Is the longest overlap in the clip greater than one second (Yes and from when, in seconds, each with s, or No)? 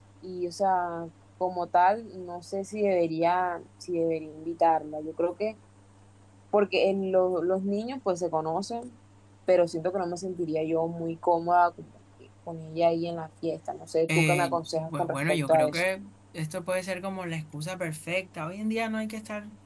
Yes, from 14.1 s